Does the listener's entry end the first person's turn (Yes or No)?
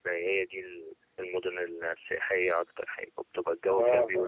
Yes